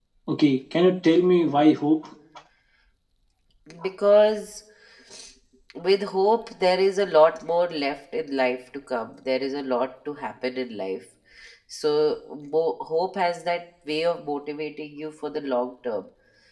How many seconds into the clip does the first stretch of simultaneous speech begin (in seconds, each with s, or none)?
none